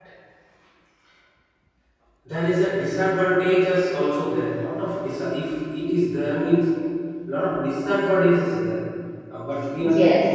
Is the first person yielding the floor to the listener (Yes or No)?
No